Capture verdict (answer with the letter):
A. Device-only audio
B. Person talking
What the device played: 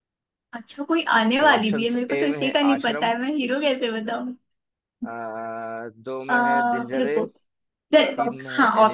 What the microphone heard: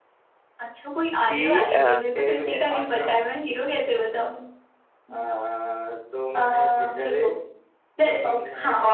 B